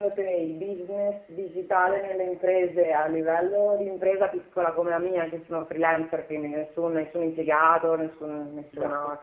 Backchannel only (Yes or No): Yes